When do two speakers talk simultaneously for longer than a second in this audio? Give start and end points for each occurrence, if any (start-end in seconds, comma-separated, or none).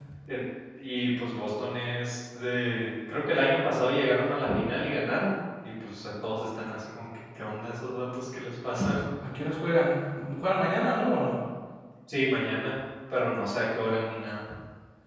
none